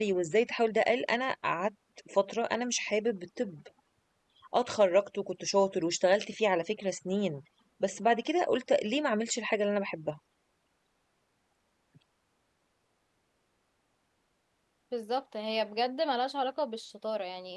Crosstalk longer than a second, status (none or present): none